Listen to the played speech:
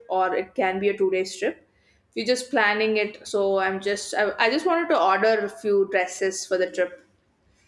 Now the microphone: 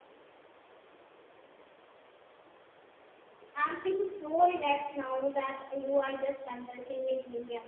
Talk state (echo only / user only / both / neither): user only